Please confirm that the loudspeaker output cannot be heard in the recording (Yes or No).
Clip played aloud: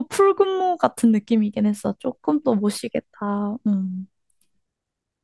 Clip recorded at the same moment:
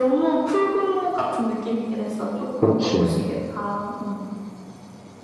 No